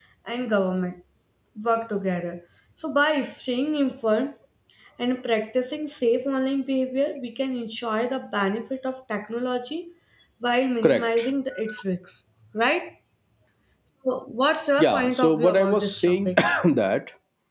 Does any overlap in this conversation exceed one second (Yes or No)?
Yes